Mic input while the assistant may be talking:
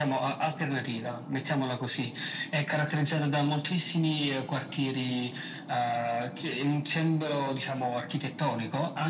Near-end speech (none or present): none